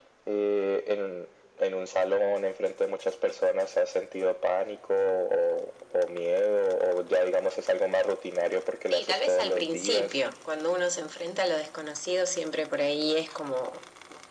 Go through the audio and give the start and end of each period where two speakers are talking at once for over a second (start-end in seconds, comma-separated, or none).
8.9-10.1